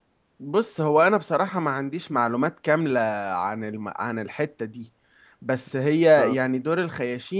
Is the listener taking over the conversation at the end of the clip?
No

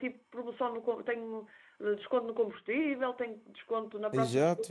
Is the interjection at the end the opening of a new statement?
Yes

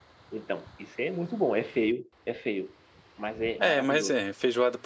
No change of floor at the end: No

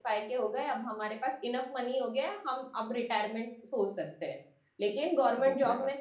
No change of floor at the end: Yes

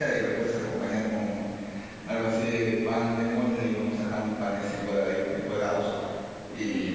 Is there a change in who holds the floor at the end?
No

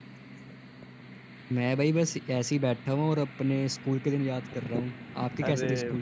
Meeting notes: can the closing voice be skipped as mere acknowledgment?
No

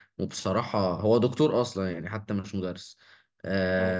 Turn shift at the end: No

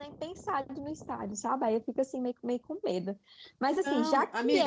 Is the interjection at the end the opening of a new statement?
Yes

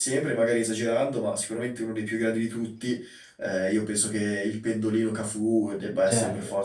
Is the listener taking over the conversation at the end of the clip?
Yes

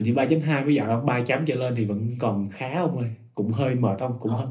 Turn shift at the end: No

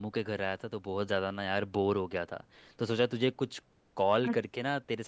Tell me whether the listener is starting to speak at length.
No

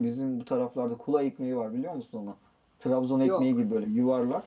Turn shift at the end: No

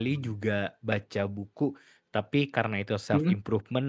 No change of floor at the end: Yes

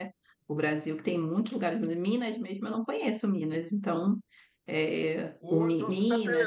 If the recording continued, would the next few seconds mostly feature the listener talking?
Yes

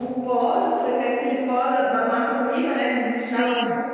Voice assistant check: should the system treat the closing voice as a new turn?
No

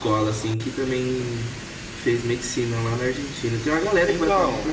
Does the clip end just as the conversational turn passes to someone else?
Yes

